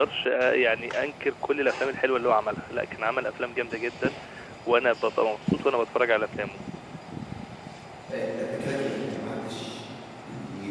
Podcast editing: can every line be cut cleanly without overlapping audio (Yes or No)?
Yes